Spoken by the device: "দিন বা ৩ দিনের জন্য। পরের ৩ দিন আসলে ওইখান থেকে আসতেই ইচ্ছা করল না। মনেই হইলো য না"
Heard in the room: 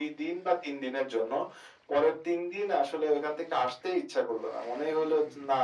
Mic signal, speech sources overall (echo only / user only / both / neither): echo only